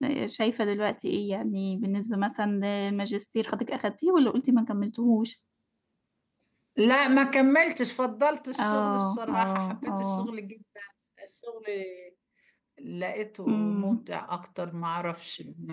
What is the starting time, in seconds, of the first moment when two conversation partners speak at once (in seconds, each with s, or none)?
8.6 s